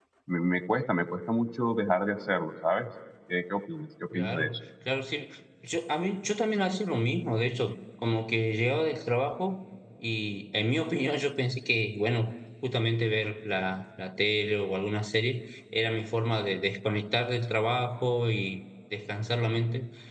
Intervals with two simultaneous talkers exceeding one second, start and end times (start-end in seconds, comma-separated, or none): none